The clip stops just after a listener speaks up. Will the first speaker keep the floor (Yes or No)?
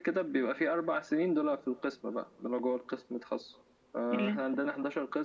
Yes